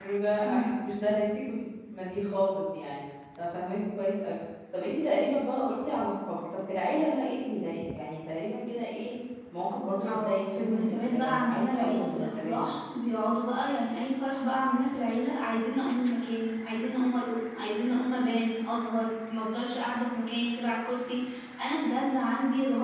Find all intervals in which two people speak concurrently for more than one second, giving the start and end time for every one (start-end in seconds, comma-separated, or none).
10.0-12.6